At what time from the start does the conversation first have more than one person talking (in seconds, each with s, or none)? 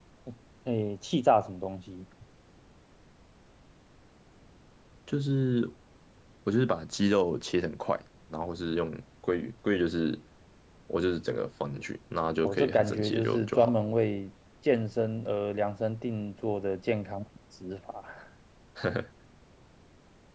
12.4 s